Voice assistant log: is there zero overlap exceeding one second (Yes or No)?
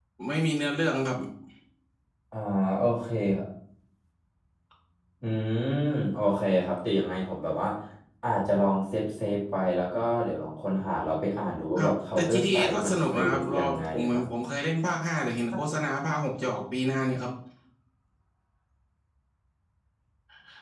No